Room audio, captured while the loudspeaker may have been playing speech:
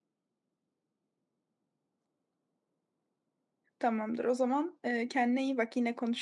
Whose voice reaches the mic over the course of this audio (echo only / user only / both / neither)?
user only